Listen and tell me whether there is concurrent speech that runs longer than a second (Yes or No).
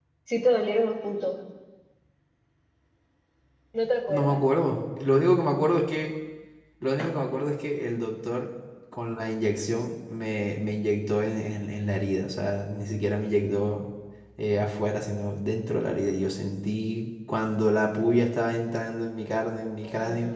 No